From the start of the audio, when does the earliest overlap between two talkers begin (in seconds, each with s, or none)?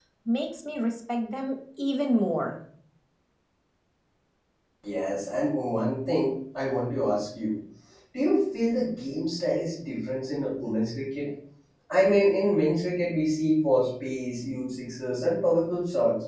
none